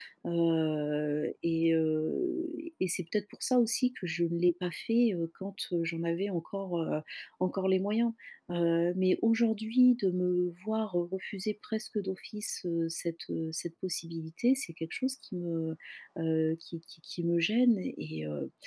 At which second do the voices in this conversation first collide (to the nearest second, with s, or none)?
none